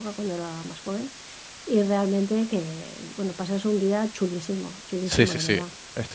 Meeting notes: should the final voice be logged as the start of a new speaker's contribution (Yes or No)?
Yes